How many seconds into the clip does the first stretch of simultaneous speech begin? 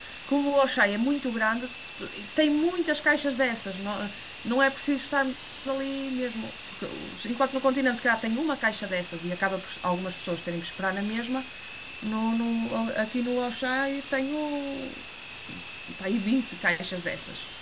none

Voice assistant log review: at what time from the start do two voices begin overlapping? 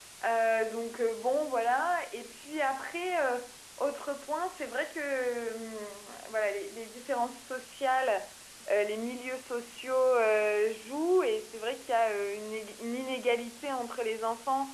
none

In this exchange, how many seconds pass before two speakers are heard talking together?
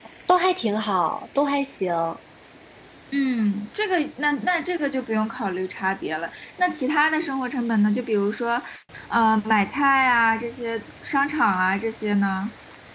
none

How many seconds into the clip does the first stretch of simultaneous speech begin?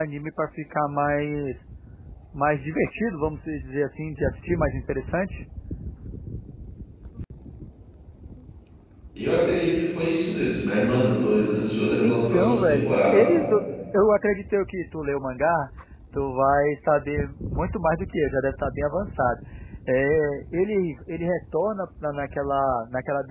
12.0 s

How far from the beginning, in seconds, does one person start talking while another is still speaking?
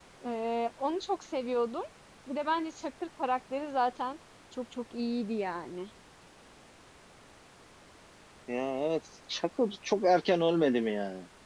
none

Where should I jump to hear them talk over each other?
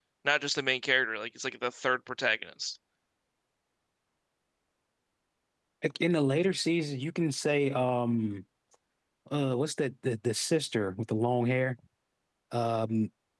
none

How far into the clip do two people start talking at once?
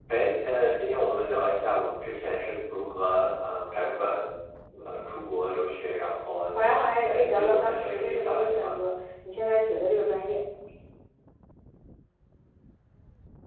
6.5 s

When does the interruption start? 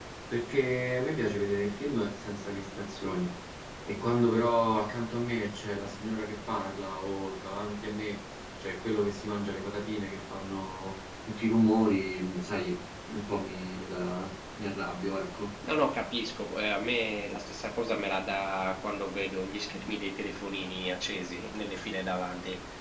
none

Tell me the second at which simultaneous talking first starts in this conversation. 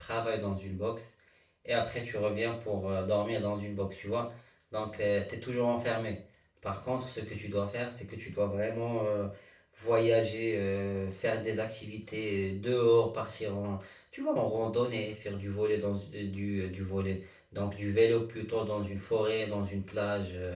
none

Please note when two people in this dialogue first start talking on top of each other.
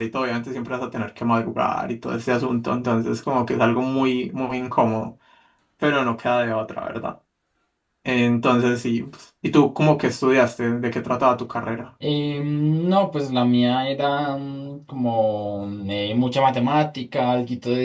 none

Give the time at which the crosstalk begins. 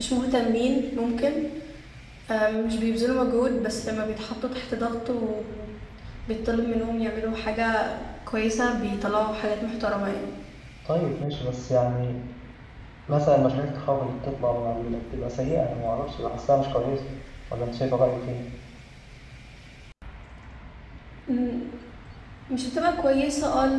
none

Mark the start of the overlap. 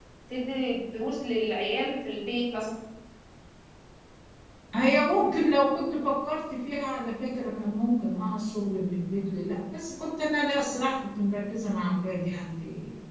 none

